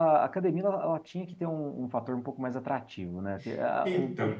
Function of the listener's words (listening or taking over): listening